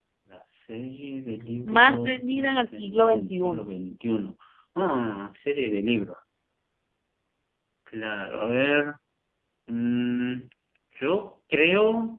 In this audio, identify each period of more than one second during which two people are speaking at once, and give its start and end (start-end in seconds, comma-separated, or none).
1.6-3.7